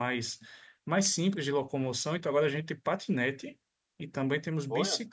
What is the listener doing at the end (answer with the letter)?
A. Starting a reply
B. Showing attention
B